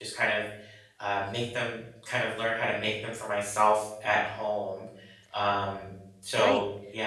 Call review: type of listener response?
taking over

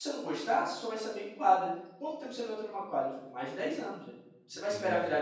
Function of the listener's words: listening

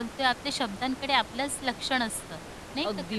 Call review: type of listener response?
taking over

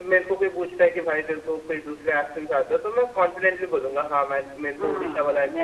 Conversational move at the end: taking over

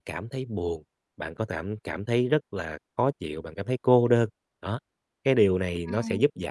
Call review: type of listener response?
listening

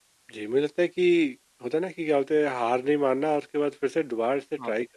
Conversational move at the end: listening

